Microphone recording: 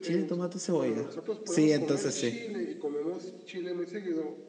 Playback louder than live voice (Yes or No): No